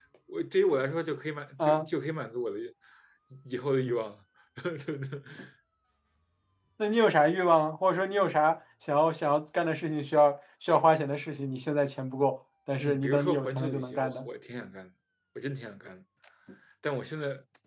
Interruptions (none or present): present